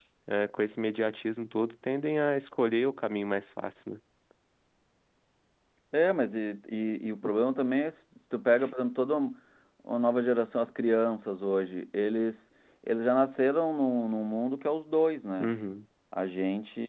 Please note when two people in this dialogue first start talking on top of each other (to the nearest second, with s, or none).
none